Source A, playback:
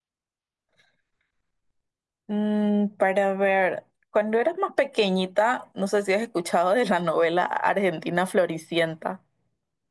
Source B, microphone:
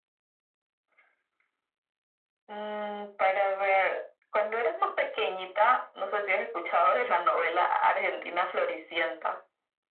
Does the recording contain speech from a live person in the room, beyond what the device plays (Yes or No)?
No